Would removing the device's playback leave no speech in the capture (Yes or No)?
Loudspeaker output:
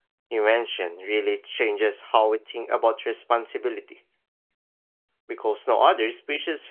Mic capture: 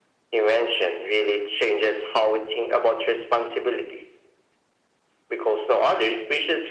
Yes